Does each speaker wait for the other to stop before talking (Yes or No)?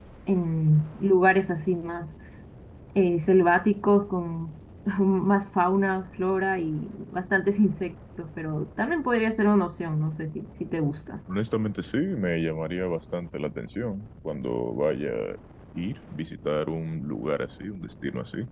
Yes